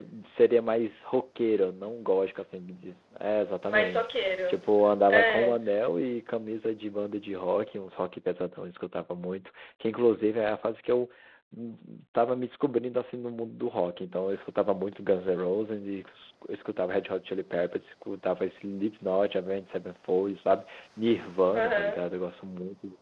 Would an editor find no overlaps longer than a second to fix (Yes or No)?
Yes